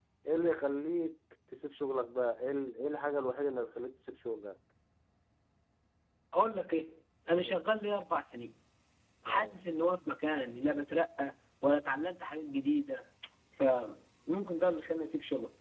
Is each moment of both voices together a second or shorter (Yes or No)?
Yes